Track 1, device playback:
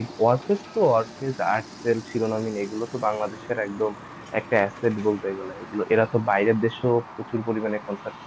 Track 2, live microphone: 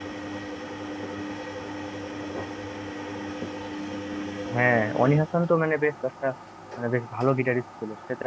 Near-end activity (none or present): present